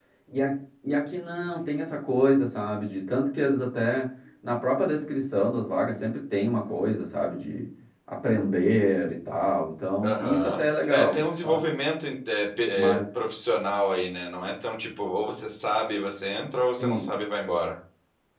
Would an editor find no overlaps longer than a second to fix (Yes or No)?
No